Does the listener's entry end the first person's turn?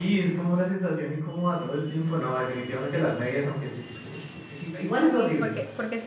Yes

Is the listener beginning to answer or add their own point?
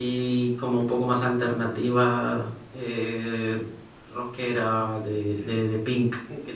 Yes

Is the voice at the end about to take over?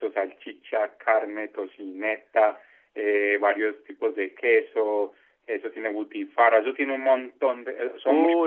Yes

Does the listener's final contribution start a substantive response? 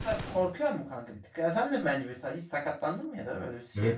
Yes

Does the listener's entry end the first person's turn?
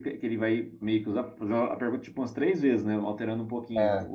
No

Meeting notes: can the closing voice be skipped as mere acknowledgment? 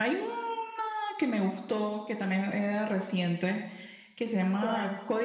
Yes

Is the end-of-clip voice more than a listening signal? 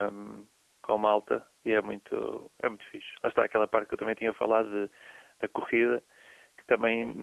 No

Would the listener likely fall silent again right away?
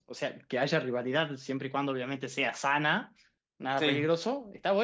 Yes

